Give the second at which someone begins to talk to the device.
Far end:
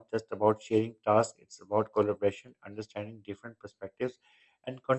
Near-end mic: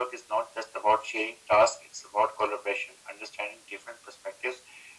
none

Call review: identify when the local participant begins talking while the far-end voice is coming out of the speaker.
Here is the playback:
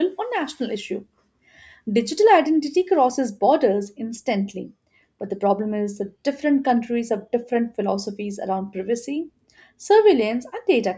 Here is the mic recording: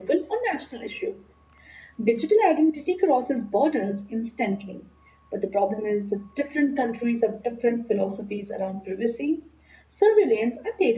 none

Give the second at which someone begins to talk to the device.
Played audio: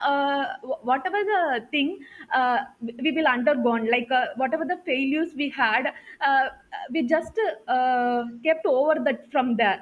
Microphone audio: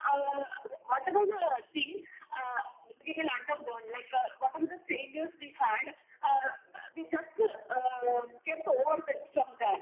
none

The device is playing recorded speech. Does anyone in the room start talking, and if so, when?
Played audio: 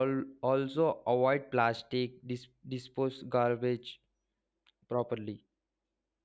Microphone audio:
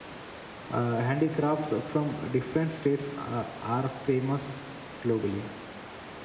0.7 s

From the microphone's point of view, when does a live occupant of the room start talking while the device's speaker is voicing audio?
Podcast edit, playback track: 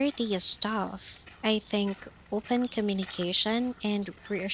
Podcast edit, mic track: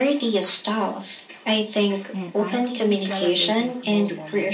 2.1 s

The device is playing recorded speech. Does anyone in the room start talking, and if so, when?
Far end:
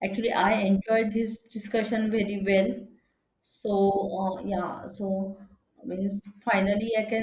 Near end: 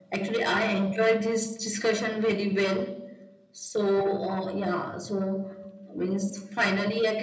none

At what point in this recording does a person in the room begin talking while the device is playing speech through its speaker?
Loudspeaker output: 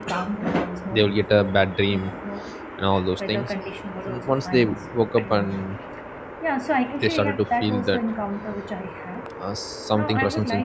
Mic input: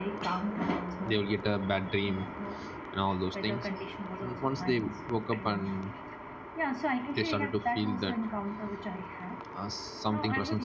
none

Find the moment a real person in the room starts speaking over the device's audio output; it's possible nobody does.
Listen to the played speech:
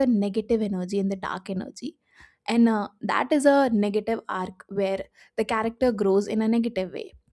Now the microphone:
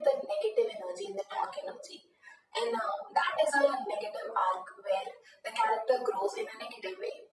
none

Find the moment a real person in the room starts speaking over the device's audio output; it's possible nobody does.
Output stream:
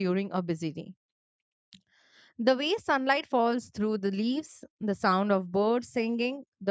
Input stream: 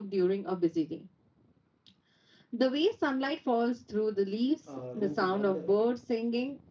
4.7 s

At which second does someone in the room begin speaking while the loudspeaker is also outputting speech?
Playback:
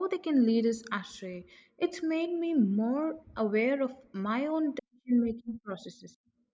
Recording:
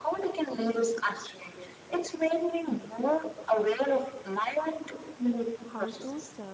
5.6 s

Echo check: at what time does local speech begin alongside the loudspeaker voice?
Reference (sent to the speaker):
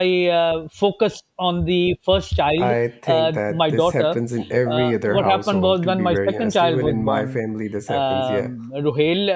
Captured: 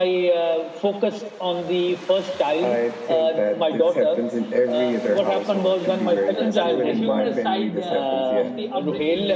5.7 s

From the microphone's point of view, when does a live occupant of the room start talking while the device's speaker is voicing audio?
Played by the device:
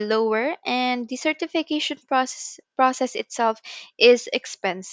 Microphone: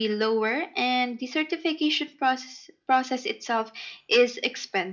none

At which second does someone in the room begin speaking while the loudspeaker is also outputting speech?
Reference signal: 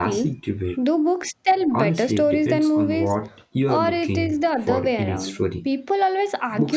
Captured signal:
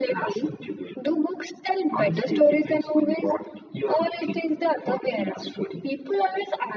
none

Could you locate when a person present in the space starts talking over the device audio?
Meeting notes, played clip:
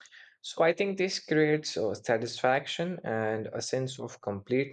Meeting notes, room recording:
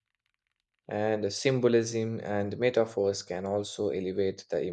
0.9 s

